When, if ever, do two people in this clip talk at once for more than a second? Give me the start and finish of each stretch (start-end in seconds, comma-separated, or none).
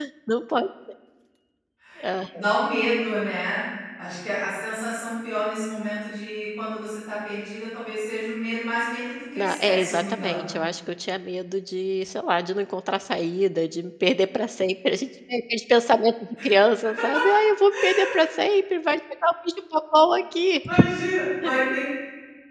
9.4-10.6